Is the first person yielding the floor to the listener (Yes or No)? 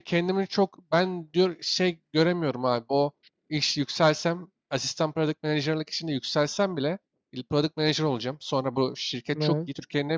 No